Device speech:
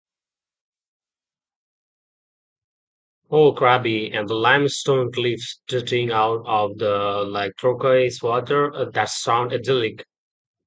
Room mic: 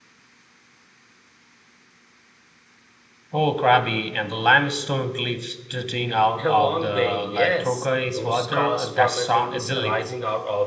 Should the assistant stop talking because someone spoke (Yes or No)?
Yes